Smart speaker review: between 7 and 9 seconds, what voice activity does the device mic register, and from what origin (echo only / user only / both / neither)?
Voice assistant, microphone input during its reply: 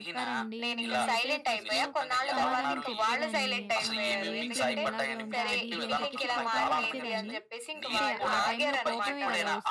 both